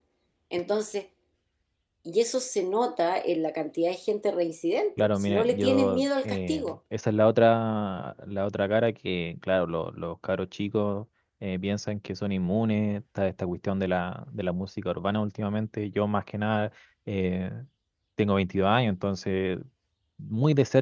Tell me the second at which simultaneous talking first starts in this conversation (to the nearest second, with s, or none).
5 s